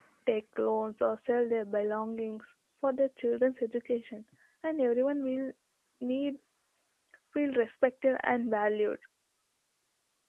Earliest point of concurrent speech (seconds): none

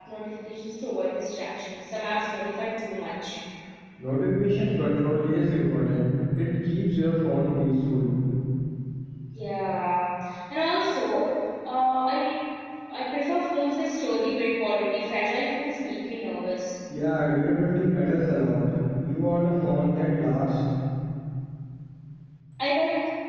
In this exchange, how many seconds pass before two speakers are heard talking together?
none

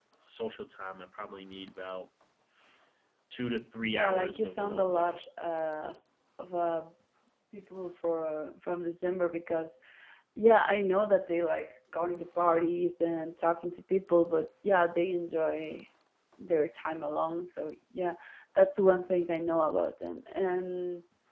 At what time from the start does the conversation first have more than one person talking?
3.9 s

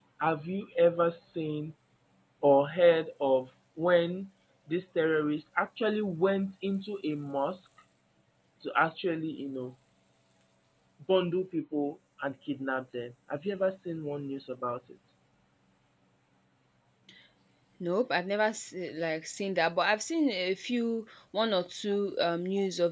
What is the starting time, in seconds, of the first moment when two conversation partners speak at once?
none

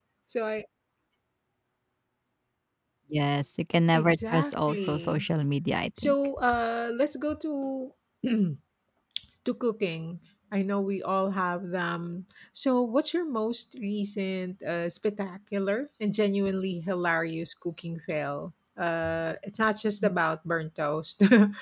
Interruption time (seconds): 3.9 s

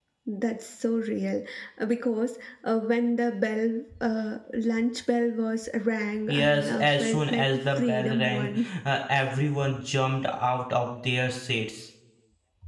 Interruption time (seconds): 6.3 s

